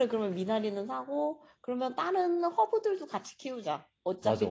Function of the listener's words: taking over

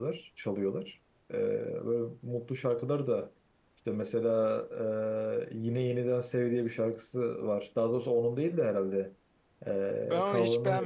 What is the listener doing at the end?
taking over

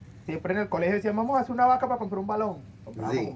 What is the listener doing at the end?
listening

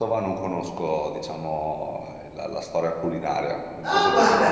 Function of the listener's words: taking over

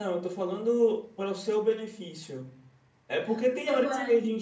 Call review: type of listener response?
listening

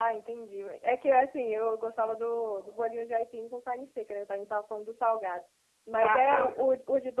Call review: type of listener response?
listening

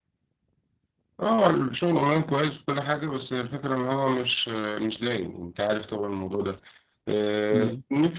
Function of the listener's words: listening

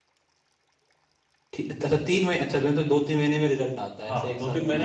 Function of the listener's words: taking over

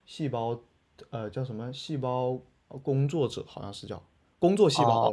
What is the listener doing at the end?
taking over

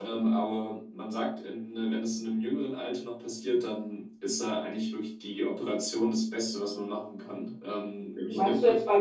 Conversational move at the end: taking over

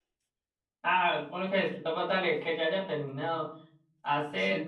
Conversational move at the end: listening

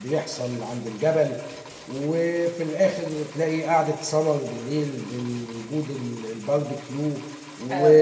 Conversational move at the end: listening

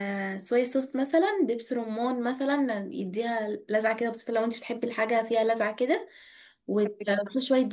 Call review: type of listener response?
listening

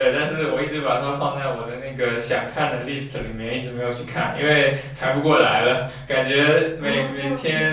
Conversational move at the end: listening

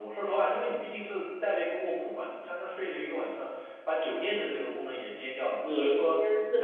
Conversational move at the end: taking over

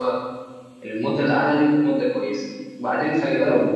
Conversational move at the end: listening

